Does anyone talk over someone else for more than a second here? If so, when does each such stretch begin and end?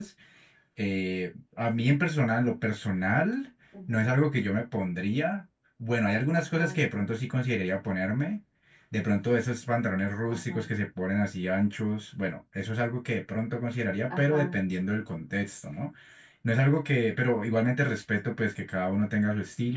none

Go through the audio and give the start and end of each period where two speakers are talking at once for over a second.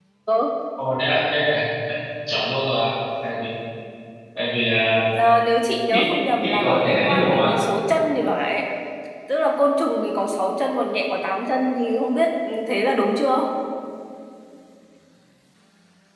5.9-7.6

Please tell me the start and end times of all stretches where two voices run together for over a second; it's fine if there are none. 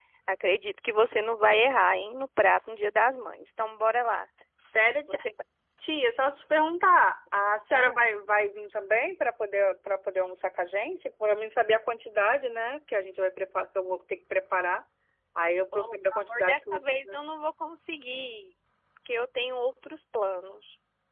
15.7-17.2

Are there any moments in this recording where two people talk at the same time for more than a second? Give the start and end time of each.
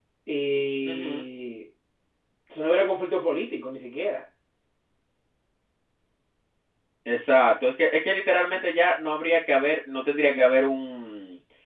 none

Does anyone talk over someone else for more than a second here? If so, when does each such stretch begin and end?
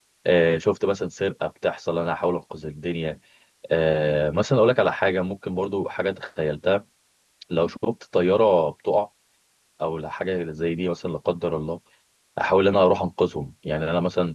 none

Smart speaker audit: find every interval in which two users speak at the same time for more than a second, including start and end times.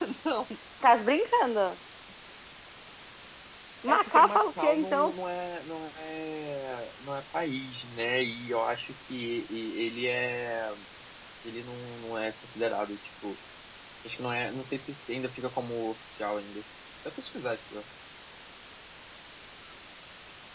3.9-5.1

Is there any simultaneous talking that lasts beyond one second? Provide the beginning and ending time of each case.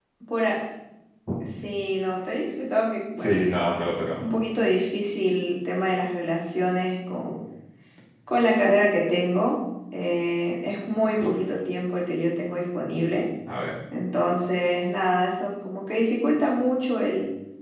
none

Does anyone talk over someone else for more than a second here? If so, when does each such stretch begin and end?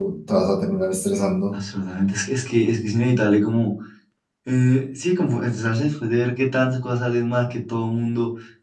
none

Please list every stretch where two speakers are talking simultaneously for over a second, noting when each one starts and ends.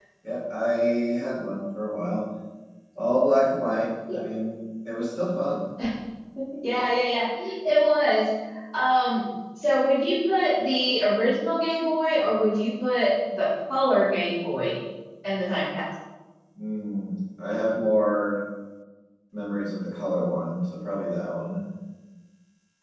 none

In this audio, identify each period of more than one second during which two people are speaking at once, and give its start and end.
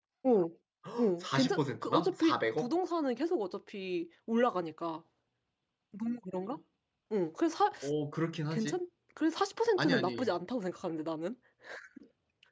1.2-2.7

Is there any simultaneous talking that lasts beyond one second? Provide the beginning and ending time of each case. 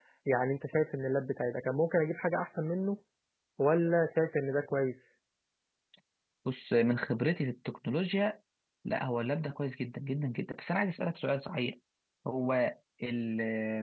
none

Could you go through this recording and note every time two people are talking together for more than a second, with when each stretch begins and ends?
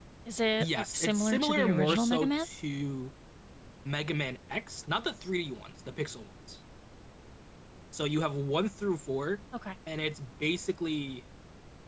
0.6-2.4

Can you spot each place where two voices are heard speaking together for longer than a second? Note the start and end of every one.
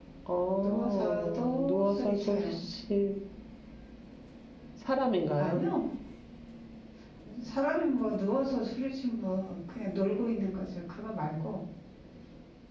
0.6-2.4

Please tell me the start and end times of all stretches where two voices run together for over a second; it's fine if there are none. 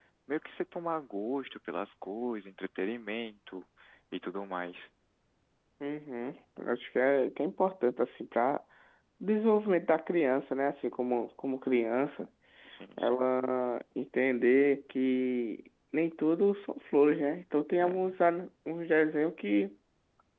none

